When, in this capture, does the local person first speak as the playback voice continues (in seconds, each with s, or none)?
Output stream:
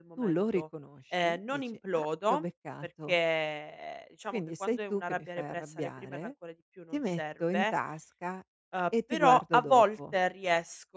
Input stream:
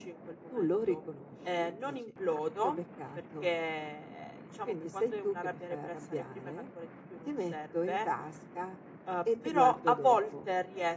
none